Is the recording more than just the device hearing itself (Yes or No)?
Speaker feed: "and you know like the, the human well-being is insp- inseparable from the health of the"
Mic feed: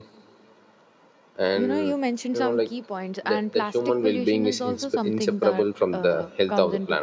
Yes